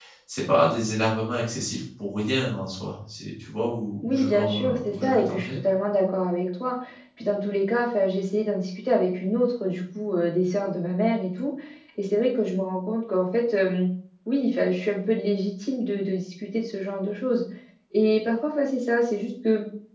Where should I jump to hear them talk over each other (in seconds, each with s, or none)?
4.0 s